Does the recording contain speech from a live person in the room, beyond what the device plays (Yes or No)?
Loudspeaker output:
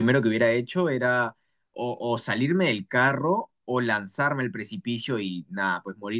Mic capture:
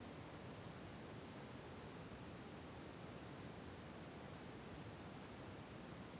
No